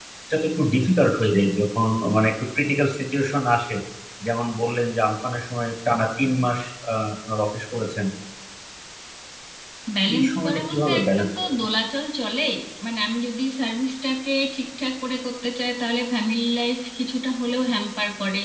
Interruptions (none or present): present